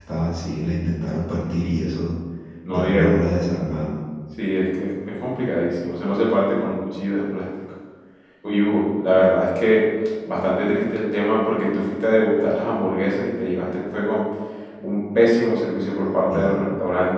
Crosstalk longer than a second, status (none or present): none